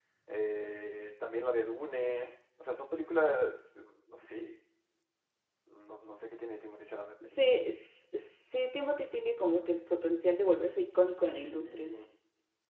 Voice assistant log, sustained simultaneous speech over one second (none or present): none